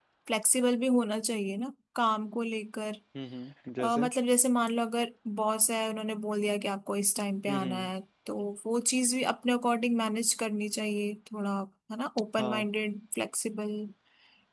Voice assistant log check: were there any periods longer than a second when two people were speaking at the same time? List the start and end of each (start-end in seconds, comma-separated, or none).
none